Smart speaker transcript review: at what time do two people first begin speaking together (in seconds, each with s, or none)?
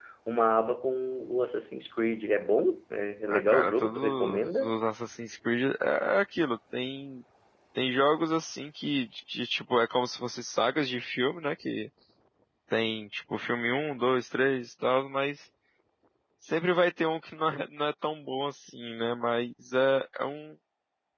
3.3 s